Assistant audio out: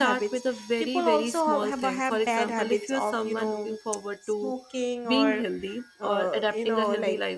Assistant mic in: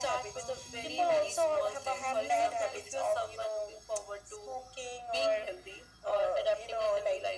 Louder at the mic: echo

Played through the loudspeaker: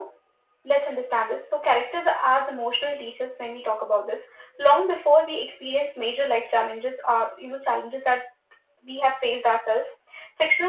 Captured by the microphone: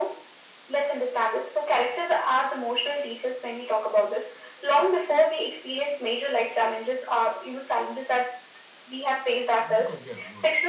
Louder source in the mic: echo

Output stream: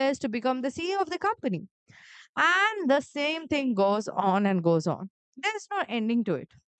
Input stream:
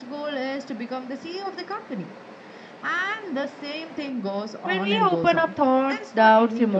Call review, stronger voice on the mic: user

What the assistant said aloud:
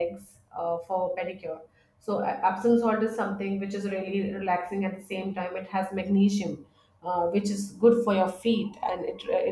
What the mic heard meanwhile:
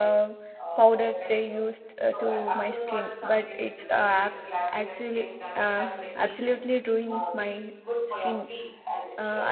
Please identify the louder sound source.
user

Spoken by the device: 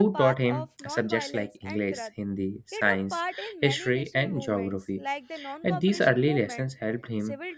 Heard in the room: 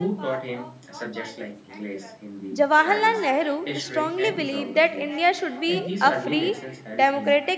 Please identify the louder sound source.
user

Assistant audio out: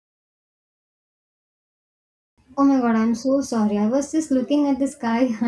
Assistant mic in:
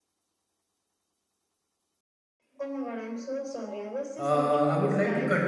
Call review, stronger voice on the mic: user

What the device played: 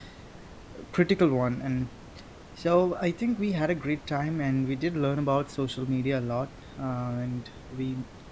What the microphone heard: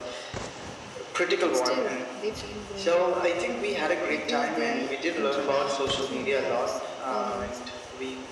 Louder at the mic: echo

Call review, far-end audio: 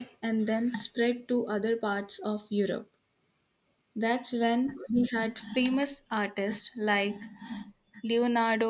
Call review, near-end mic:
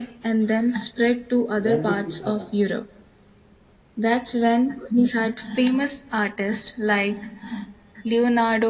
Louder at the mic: echo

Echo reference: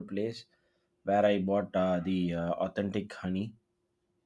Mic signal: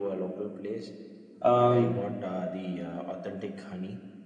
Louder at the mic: user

